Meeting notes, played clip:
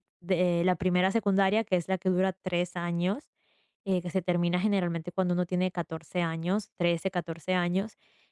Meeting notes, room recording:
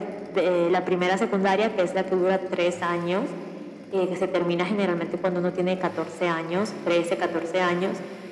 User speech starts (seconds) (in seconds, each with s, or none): none